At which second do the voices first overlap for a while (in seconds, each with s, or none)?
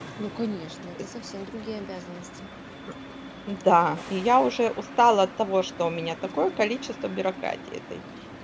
none